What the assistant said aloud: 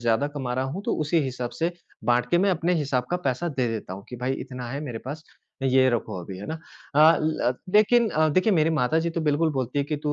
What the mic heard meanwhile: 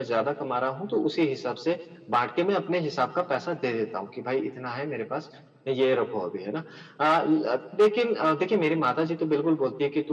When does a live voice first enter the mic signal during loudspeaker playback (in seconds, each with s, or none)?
none